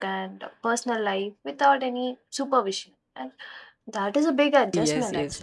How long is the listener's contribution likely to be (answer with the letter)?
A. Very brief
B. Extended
B